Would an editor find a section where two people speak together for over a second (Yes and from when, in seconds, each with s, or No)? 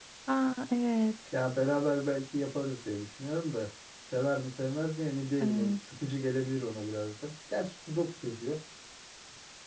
No